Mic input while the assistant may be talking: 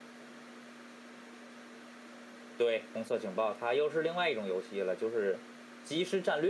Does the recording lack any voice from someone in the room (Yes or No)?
No